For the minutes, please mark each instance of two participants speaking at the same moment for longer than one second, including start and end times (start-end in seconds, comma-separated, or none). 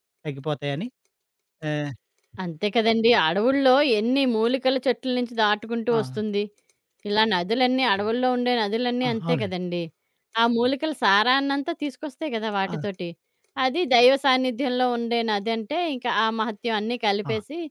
none